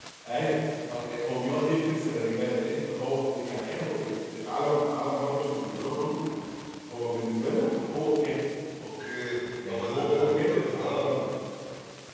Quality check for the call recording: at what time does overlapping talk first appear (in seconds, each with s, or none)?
9.6 s